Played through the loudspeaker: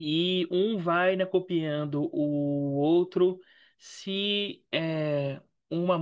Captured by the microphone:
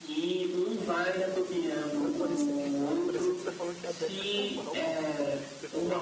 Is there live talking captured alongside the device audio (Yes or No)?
Yes